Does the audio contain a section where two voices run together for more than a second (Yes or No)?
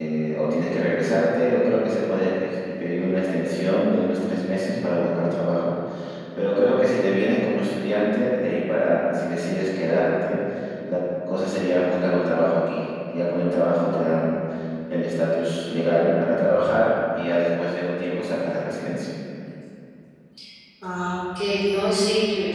No